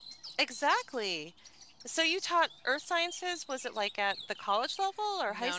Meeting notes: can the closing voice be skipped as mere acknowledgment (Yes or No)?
No